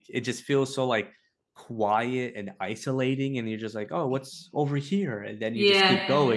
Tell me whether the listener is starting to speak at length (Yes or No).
No